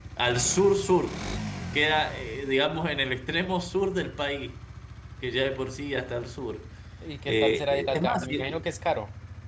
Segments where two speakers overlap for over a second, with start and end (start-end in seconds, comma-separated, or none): 7.3-8.5